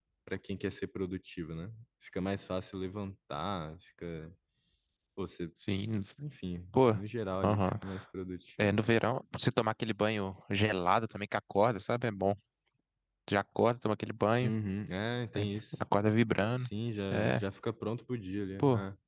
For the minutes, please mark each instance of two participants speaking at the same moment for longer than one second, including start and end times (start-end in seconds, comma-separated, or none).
none